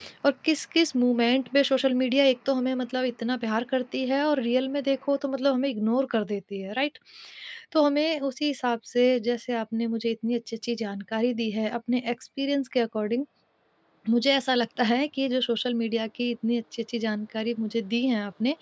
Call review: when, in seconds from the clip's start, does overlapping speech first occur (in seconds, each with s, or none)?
none